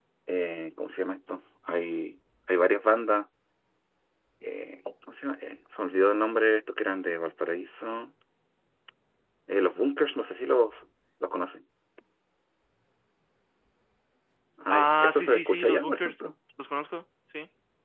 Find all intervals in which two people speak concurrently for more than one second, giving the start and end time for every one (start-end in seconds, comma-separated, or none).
14.7-16.1